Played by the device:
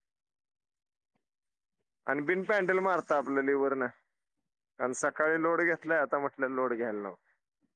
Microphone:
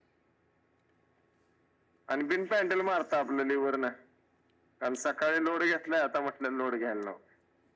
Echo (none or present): present